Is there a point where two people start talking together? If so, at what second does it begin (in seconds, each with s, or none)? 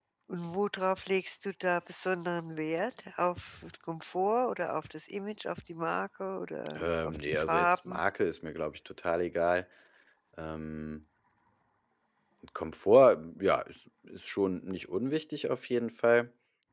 6.7 s